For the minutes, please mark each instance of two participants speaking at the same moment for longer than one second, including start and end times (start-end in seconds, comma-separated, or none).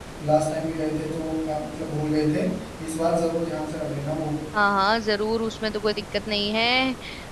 none